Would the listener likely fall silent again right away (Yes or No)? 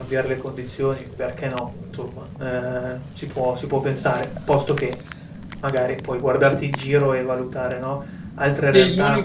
No